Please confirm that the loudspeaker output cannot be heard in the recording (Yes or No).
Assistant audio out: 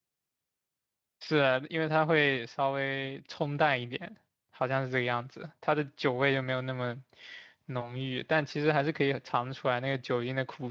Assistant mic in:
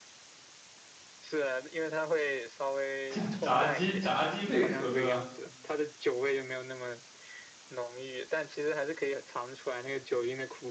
No